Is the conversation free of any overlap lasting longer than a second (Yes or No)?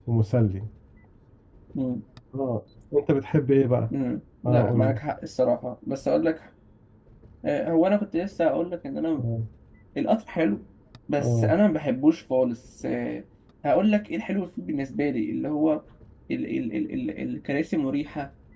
Yes